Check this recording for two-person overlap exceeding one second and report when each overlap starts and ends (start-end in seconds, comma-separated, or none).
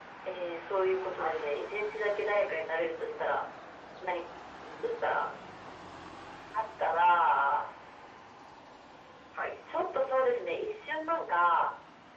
none